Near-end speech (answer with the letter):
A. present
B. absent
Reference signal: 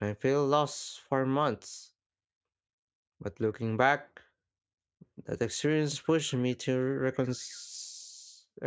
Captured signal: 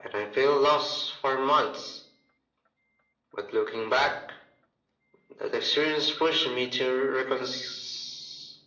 B